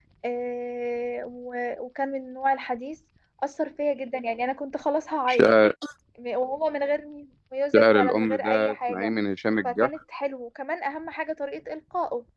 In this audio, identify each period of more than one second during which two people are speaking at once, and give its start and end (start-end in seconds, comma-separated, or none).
7.8-9.1